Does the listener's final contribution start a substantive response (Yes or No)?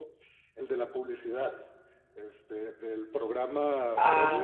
Yes